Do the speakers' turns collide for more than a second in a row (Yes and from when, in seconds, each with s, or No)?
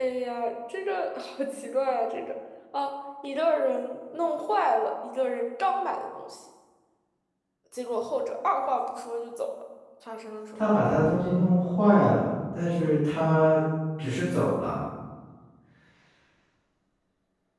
No